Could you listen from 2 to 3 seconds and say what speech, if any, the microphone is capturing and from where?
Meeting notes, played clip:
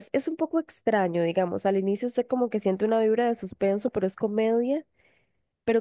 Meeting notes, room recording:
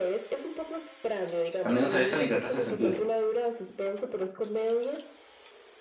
both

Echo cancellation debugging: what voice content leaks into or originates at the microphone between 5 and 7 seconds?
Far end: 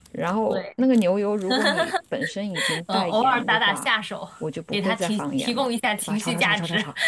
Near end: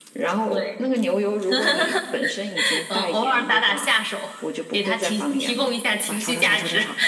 echo only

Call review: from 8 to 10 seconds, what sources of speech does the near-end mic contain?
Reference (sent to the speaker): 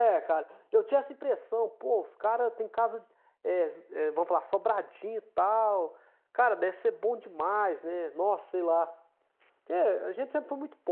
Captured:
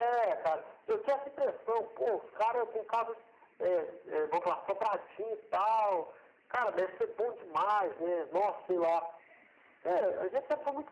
echo only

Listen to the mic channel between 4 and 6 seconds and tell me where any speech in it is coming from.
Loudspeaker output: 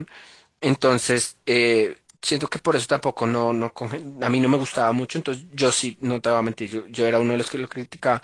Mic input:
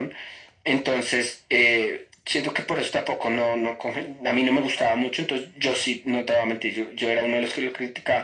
echo only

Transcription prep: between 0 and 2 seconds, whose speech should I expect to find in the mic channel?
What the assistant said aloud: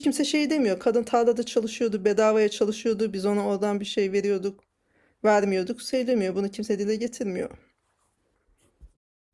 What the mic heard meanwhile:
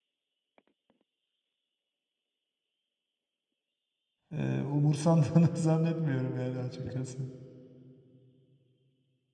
neither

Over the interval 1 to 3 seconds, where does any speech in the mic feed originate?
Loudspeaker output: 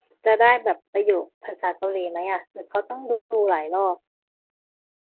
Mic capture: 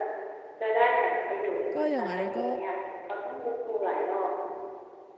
both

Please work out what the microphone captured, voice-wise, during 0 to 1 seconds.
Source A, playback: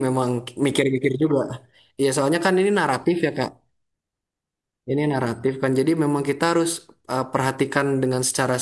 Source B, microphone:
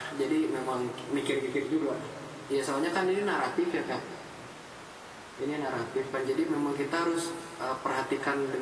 echo only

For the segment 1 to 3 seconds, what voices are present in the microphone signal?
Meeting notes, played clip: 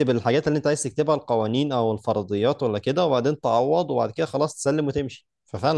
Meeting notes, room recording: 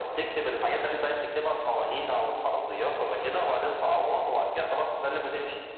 echo only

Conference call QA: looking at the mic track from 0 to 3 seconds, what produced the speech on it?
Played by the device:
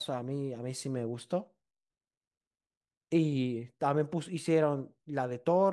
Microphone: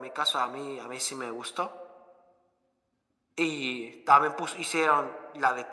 echo only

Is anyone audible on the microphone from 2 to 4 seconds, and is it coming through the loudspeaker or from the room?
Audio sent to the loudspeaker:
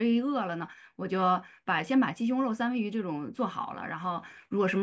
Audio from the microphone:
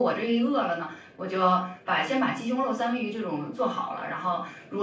echo only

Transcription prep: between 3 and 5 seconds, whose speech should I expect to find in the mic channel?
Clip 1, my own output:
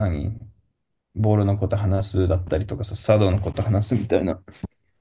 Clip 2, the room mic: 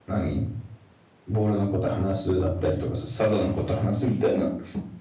echo only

